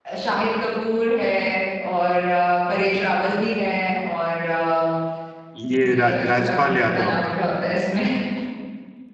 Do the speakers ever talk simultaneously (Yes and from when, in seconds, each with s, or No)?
Yes, from 5.7 s